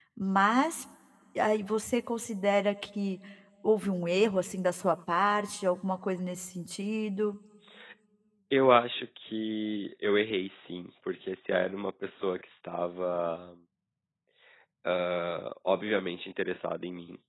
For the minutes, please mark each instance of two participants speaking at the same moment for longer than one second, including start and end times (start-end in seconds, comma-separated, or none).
none